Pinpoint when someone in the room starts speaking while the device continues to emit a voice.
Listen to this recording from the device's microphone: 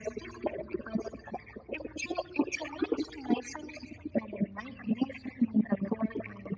none

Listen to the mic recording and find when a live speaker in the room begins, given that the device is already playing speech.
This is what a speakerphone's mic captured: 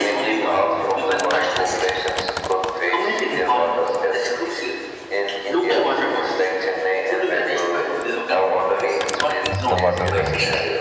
9.5 s

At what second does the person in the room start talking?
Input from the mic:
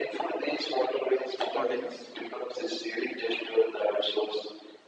1.5 s

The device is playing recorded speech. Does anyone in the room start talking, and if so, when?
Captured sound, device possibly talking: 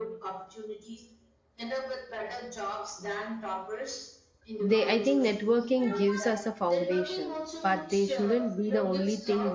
4.6 s

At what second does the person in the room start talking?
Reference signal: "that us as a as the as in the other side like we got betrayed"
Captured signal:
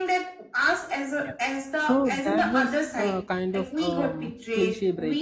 1.2 s

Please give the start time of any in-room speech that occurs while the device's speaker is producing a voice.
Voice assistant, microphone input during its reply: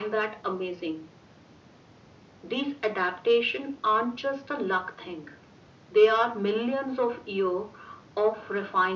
none

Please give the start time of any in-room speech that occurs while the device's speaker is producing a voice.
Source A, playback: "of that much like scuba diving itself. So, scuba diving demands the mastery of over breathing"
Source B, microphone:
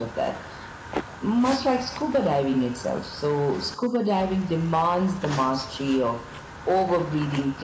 none

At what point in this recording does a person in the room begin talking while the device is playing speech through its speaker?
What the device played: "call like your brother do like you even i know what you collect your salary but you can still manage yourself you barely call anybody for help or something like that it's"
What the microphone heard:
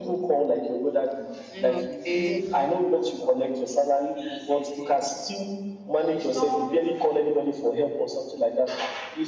1.5 s

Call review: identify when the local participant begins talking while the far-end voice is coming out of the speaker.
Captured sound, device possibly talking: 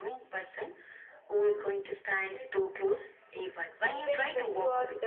3.9 s

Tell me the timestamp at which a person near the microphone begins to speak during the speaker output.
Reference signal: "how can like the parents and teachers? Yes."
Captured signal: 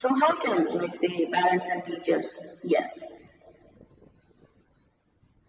none

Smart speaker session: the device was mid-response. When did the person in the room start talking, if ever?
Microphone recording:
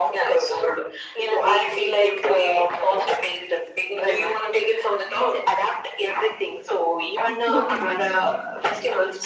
7.2 s

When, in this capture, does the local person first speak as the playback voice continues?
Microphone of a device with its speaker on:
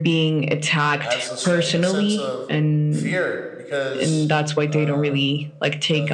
1.0 s

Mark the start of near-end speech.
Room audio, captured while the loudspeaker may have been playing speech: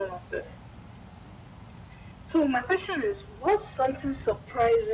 none

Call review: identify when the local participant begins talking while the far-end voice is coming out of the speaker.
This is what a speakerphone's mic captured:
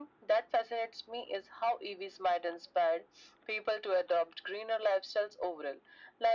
none

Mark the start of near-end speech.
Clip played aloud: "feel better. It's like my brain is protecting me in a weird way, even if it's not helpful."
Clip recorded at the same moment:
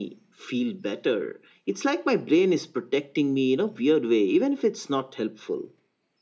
none

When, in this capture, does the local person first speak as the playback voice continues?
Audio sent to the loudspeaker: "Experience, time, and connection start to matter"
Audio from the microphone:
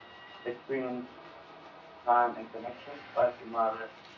none

